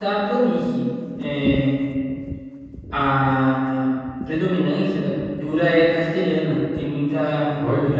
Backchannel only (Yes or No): Yes